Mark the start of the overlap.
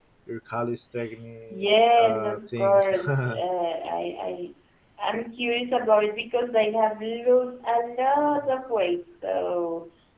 1.5 s

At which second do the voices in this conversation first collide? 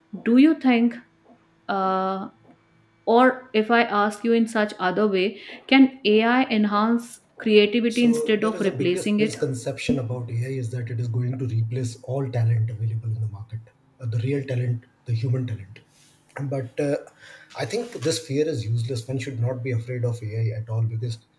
7.9 s

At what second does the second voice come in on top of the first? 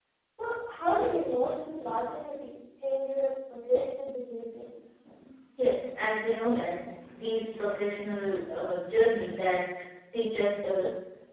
none

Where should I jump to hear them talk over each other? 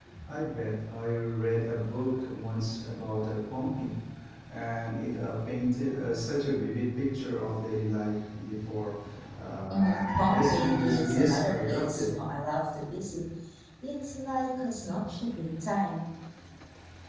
9.7 s

